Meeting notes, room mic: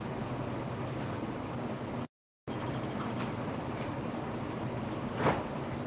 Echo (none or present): none